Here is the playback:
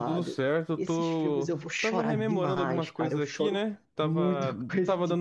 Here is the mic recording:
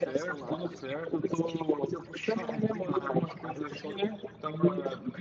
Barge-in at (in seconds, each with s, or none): none